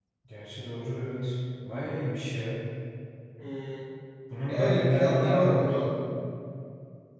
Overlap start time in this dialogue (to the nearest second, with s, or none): 4 s